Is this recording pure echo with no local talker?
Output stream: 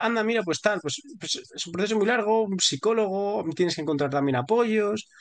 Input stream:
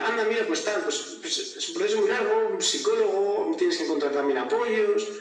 Yes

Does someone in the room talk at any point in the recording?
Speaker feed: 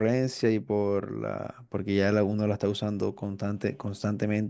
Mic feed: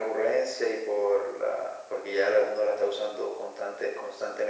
No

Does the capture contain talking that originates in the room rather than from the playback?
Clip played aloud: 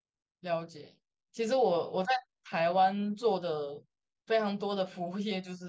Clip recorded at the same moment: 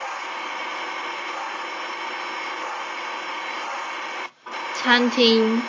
Yes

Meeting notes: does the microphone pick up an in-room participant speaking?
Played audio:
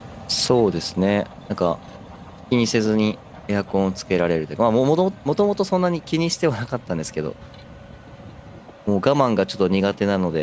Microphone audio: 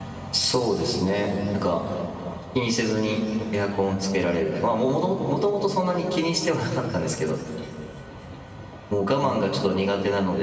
No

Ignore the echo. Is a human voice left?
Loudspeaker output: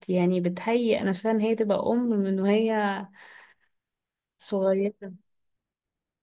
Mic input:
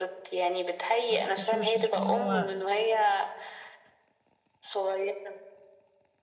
Yes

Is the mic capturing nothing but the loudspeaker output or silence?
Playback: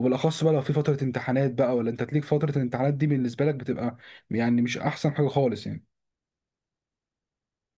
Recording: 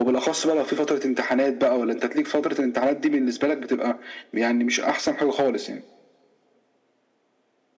Yes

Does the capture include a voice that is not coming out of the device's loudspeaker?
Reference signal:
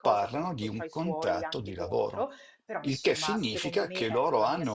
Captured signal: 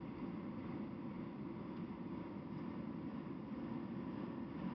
No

